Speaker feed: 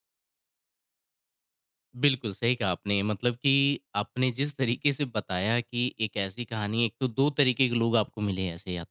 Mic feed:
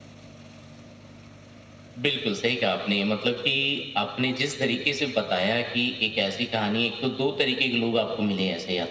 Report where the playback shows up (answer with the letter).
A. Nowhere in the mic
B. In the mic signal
B